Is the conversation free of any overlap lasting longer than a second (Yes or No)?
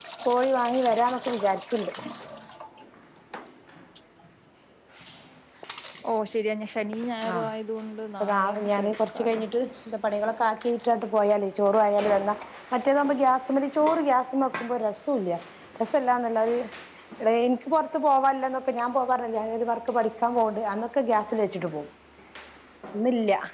No